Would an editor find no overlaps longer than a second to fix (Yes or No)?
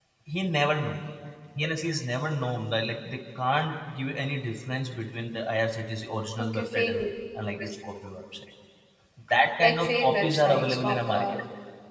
No